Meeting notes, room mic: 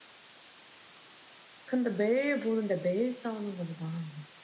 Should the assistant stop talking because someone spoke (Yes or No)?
No